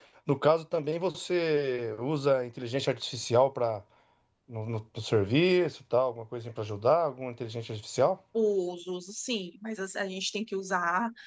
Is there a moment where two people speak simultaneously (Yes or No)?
No